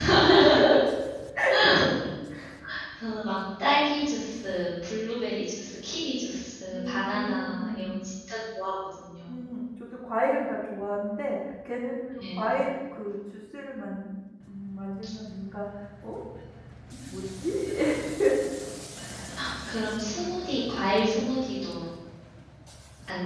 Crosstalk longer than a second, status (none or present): present